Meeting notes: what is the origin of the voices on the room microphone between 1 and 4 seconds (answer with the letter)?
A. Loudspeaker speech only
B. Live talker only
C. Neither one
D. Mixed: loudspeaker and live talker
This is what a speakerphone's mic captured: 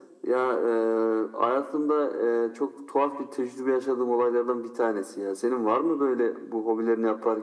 A